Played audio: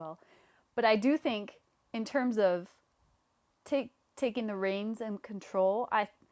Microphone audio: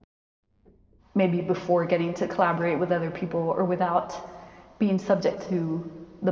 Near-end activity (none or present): present